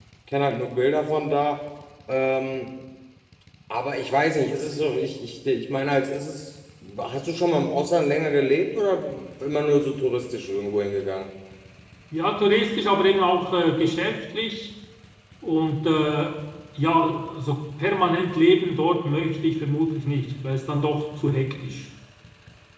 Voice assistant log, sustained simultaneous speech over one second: none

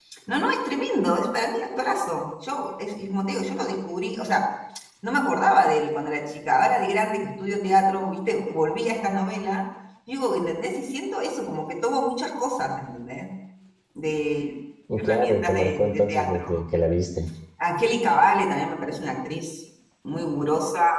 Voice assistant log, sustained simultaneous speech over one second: present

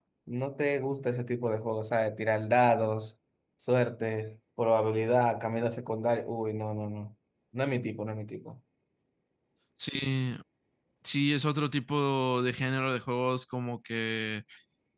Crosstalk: none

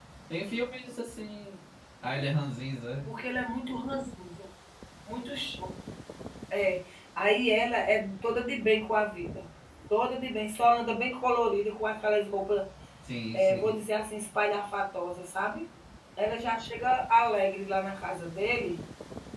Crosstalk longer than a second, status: none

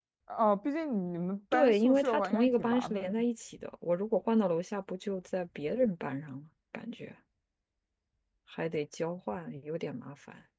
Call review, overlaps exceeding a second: present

